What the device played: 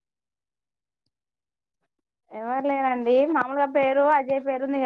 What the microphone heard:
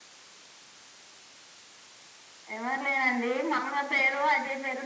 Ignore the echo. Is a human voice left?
No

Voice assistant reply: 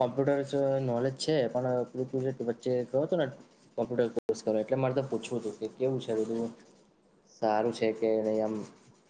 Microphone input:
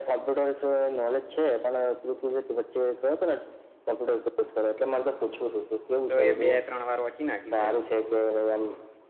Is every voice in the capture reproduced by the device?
No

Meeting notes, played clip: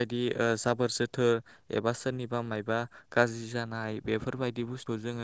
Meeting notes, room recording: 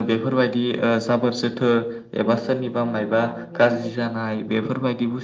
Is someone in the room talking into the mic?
Yes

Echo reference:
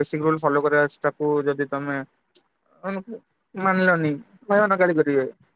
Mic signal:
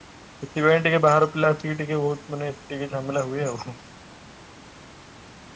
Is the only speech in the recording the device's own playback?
No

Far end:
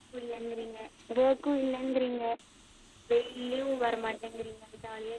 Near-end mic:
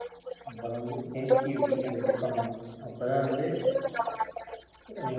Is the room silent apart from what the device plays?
No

